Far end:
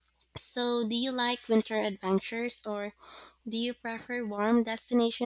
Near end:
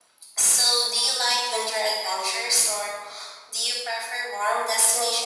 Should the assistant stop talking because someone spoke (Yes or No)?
No